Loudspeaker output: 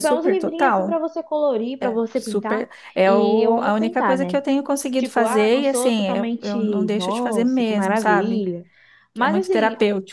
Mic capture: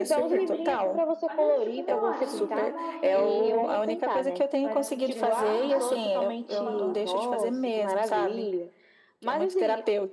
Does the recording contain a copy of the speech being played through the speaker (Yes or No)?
Yes